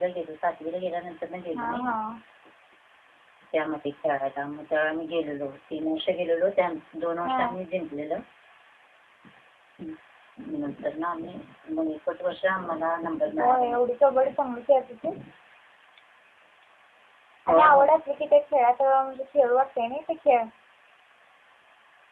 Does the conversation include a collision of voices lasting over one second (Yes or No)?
No